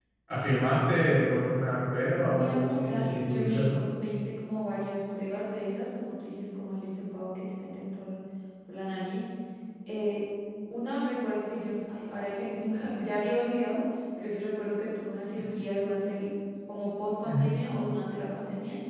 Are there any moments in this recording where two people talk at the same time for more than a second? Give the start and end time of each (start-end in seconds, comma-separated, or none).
2.2-3.8